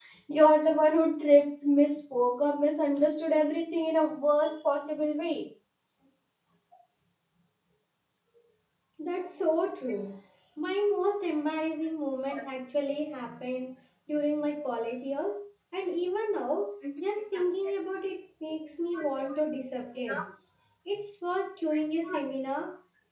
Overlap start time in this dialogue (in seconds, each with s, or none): none